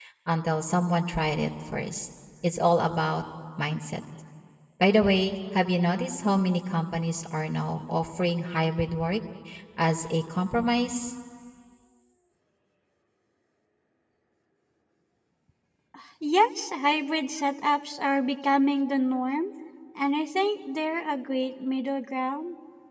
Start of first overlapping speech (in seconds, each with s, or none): none